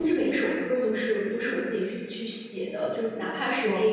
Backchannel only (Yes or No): Yes